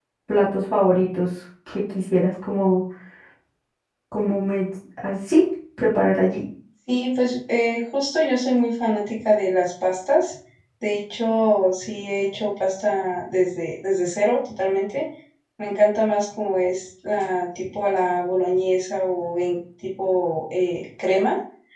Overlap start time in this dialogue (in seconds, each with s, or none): none